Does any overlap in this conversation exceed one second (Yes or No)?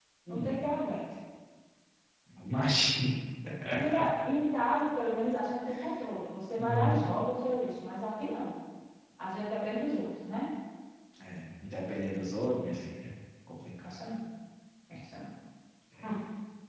No